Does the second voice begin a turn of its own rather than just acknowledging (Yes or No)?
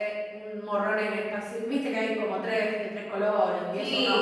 Yes